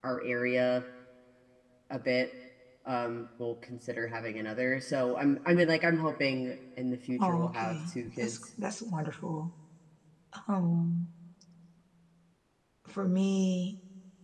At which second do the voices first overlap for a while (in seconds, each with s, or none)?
7.2 s